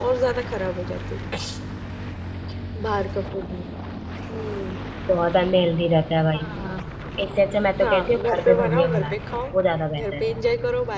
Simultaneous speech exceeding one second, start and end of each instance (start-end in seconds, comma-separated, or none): 7.8-9.2